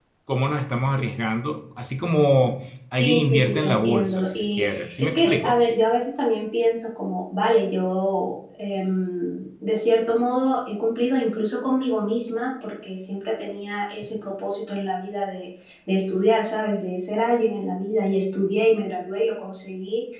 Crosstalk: present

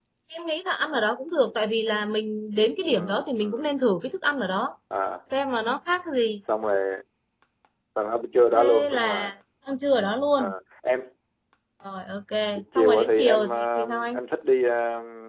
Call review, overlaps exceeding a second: present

